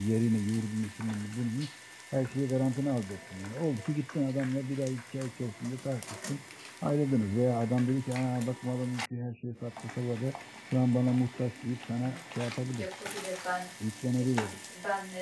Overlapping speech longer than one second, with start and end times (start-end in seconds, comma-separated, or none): none